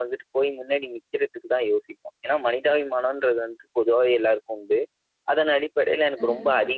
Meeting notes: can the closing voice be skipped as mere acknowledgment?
Yes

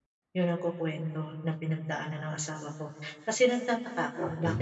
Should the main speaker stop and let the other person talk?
No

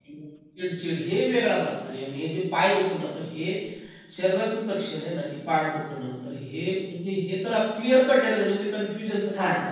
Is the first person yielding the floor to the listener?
Yes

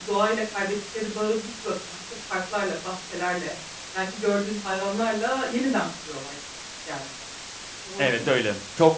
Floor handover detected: Yes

